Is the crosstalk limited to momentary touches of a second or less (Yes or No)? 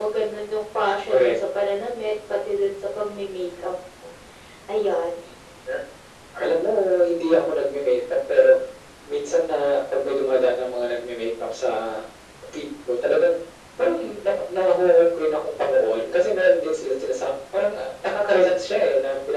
Yes